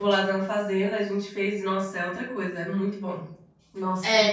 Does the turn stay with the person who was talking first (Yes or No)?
No